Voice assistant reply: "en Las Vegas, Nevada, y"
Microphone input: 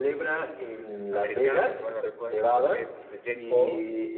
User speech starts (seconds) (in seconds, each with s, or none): 1.1 s